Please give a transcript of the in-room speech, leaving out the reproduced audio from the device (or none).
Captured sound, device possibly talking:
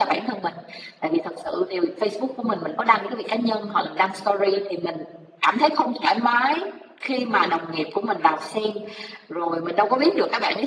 none